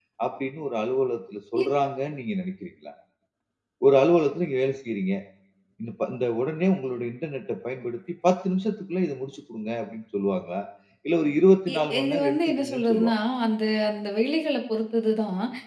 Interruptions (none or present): present